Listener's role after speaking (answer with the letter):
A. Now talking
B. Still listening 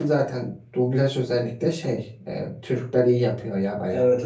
A